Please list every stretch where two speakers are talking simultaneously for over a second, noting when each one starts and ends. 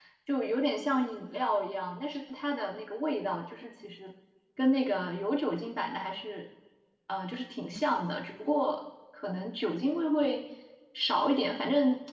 none

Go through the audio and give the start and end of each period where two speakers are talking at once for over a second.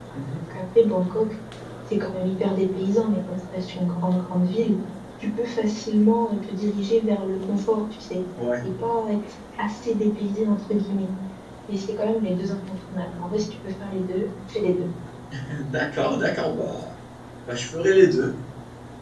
none

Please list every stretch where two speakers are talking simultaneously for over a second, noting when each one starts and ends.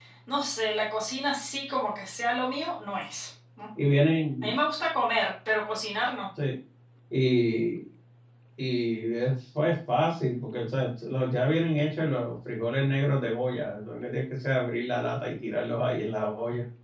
none

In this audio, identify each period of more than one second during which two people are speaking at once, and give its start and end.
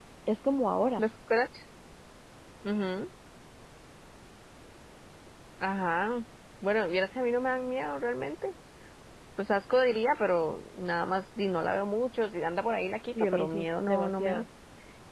13.2-14.4

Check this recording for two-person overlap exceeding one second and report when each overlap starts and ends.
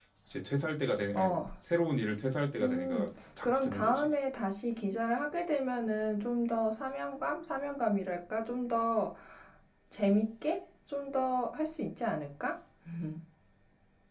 2.6-4.1

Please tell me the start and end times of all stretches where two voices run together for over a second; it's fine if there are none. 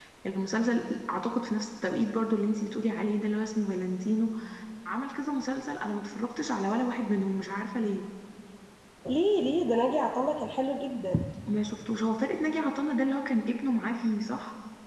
none

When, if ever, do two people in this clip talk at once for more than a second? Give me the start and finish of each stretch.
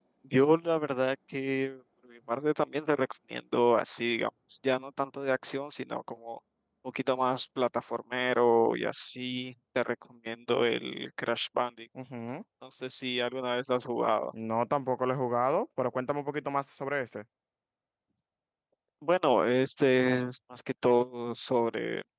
none

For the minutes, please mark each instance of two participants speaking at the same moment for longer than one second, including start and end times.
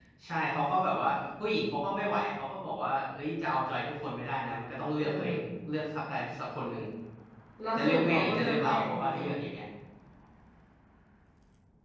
7.8-9.3

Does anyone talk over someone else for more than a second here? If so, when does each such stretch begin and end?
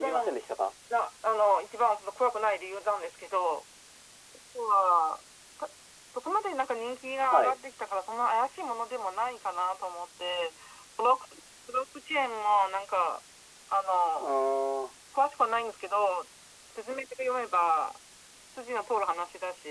none

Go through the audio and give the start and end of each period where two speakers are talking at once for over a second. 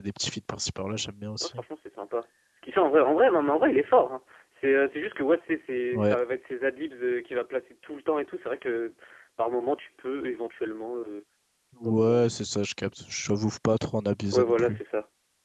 none

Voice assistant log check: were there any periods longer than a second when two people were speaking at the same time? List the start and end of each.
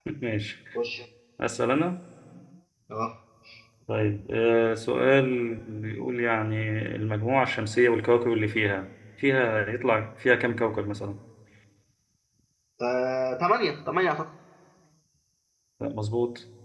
none

